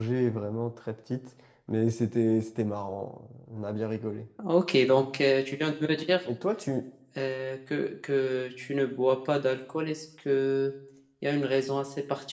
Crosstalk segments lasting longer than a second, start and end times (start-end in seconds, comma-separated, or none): none